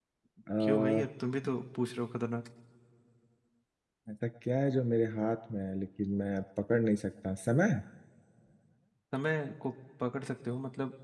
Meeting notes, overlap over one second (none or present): none